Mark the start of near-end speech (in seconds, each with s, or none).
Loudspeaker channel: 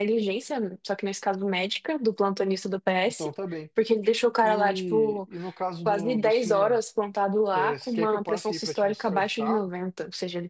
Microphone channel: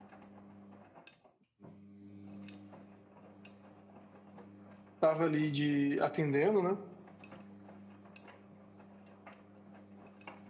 5.0 s